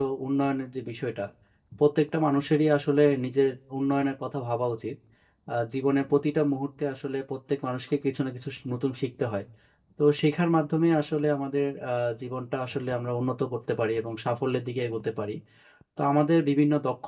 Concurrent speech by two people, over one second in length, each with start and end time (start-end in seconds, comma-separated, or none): none